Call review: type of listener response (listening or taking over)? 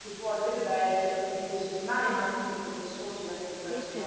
taking over